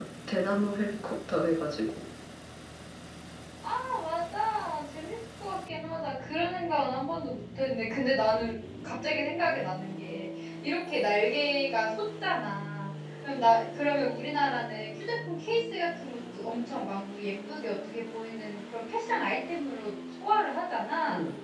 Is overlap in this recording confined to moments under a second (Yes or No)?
Yes